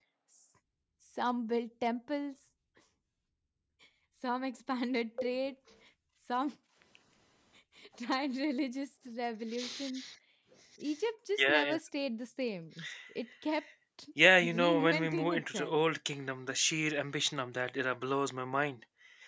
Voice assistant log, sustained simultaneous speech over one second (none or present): present